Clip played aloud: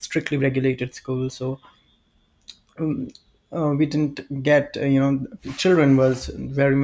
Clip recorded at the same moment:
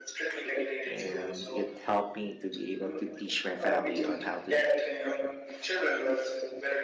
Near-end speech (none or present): present